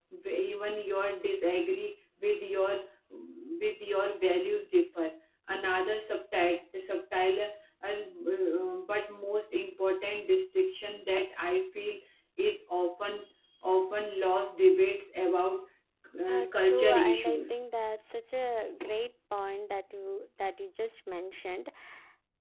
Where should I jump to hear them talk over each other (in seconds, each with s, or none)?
16.3 s